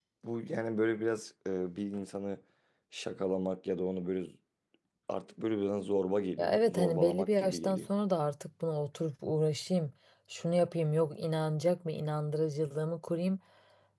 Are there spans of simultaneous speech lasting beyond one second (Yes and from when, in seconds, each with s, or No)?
Yes, from 6.4 s